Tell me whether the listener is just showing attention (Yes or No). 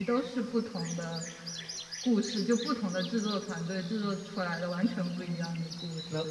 No